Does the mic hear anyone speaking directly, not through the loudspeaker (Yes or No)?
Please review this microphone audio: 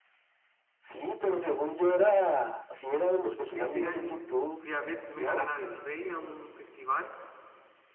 Yes